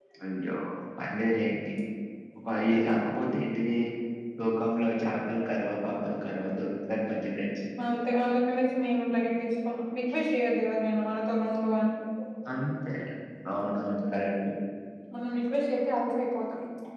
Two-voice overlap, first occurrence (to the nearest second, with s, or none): none